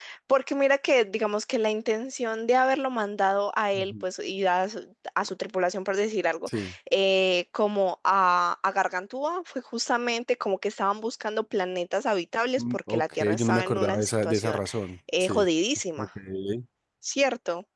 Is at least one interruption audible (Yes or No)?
Yes